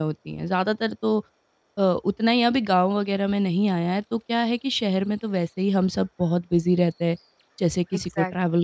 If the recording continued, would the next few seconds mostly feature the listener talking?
Yes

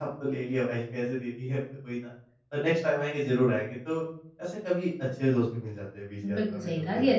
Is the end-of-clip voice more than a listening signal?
Yes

